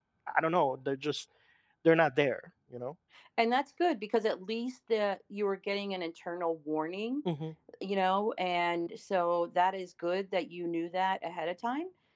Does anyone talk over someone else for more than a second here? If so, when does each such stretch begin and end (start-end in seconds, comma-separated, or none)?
none